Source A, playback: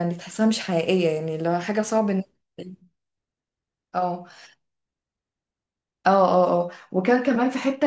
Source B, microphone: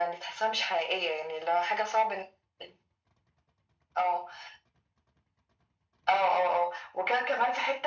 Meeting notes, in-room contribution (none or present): none